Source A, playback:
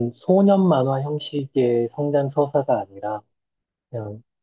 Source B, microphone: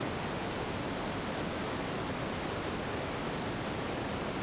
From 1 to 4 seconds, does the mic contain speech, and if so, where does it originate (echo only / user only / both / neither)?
neither